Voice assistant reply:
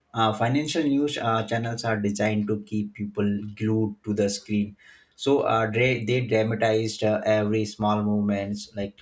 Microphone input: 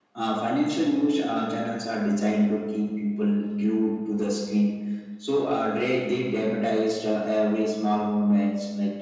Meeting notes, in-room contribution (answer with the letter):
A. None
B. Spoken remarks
A